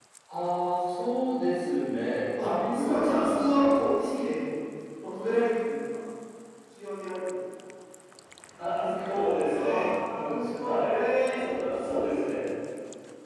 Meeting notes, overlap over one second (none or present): present